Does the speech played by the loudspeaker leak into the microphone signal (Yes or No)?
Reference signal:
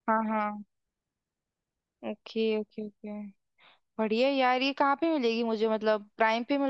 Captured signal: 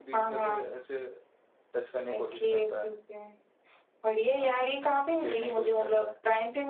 Yes